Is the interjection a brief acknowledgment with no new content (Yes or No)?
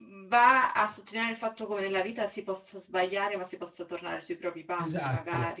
No